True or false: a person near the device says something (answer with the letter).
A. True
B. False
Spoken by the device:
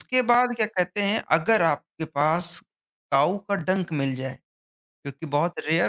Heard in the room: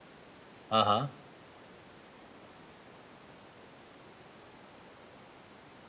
A